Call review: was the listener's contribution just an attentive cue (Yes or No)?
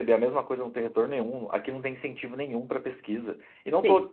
Yes